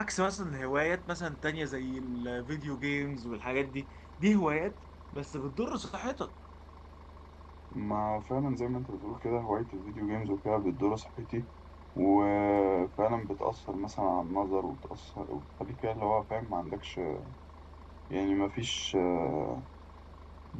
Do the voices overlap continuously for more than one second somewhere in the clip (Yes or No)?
No